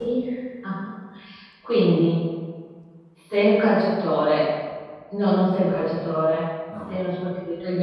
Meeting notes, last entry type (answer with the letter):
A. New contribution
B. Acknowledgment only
B